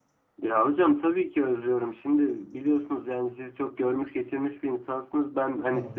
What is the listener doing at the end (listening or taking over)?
listening